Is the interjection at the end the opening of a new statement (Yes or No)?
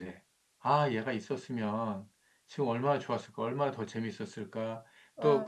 No